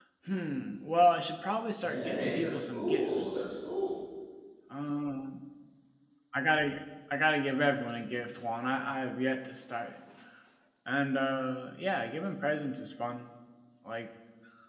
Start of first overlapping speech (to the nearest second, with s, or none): 2 s